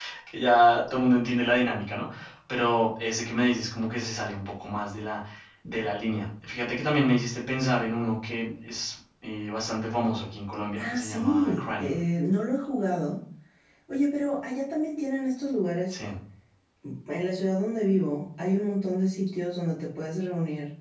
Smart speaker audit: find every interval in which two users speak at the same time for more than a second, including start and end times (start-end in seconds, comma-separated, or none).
10.8-12.0